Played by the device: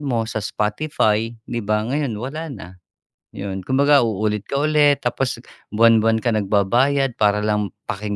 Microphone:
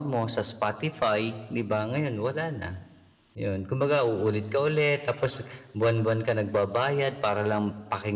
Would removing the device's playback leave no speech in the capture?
Yes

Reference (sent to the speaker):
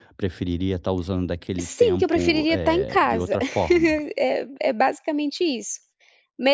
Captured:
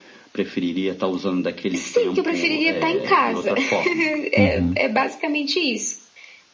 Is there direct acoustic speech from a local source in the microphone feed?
Yes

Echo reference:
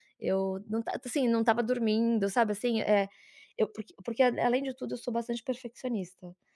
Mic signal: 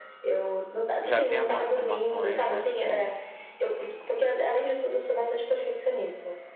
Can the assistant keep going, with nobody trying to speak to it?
No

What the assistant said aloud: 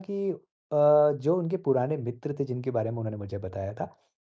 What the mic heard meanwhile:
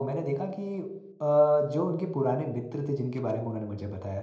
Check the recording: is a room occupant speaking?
No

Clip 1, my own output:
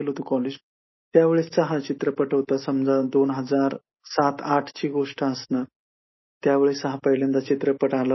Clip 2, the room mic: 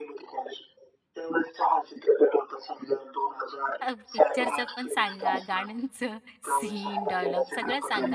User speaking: Yes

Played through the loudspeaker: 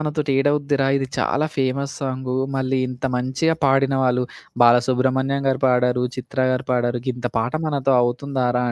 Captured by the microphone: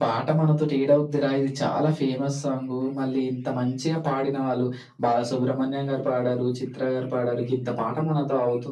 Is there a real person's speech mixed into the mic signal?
No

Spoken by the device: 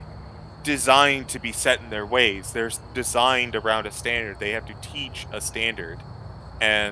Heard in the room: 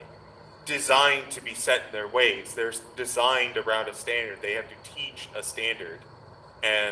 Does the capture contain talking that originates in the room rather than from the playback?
No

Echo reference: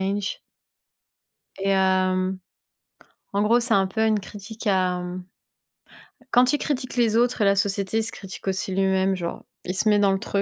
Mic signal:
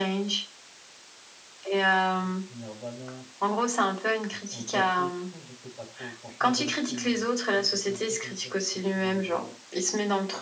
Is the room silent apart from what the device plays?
No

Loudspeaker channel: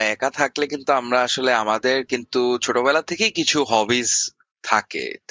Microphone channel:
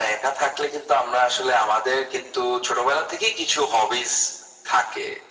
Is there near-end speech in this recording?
No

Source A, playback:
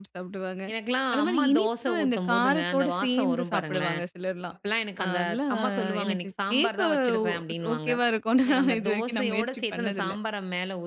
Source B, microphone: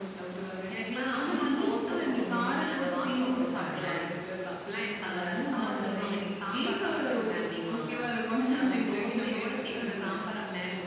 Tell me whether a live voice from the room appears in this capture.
No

